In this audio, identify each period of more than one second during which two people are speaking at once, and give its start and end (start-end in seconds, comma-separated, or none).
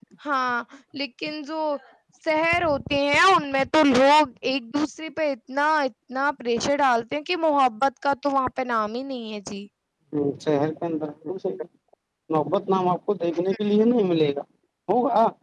none